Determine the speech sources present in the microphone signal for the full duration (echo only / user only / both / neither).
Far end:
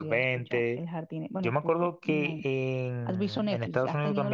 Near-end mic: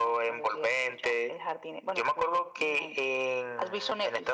echo only